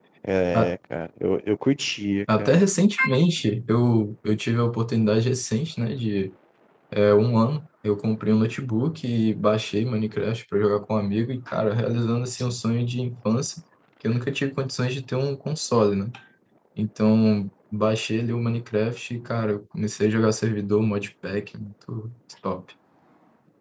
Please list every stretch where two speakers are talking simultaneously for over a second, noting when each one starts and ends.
none

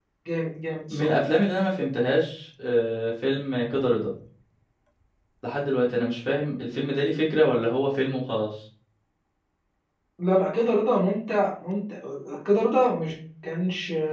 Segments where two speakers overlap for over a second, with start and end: none

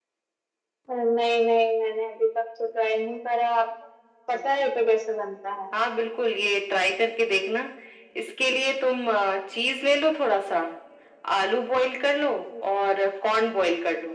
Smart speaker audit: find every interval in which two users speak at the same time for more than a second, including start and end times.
none

